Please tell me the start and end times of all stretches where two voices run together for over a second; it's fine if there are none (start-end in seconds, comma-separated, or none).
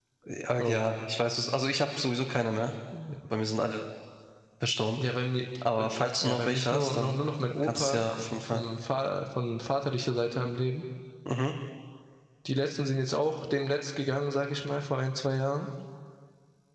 5.8-7.2